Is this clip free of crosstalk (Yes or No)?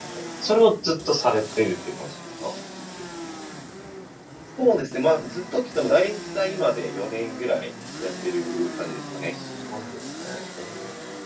Yes